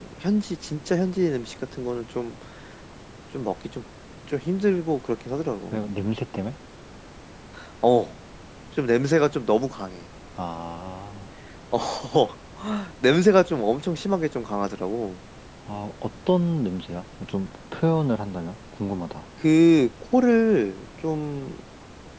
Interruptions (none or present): none